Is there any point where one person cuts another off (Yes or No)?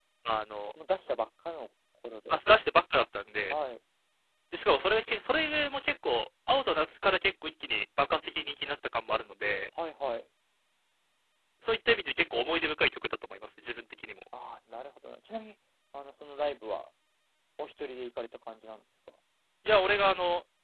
No